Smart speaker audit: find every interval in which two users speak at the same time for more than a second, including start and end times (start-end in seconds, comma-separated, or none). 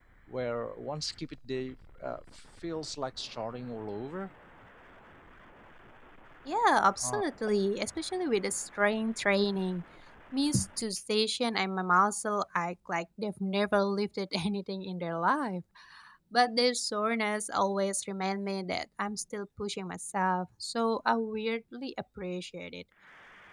none